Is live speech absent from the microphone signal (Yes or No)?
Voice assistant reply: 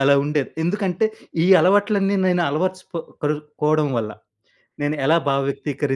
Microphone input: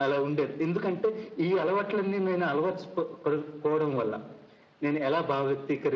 Yes